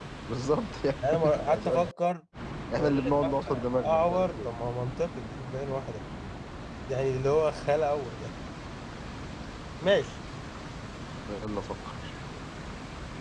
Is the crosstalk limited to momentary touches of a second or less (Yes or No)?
No